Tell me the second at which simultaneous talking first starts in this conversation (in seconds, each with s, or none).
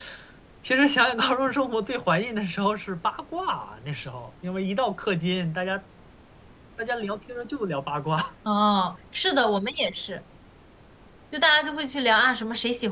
none